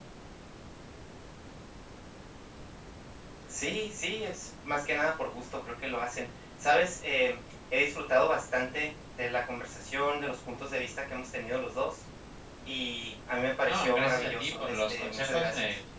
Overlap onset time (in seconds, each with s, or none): 13.7 s